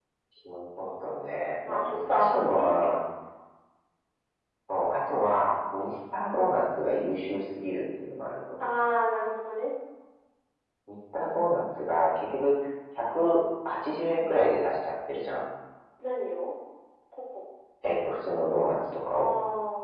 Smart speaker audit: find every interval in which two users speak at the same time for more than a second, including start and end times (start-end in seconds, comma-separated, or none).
1.6-3.0